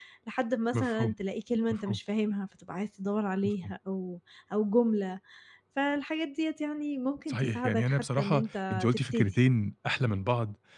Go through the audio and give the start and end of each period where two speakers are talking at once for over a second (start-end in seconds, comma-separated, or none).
7.3-9.3